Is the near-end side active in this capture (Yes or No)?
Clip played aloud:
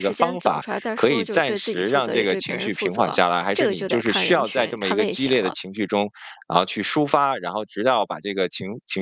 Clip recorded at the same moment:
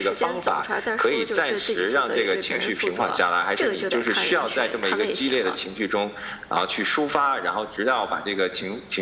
No